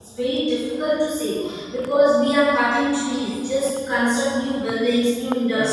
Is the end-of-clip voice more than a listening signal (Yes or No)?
No